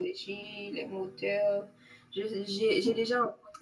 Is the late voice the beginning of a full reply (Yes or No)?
No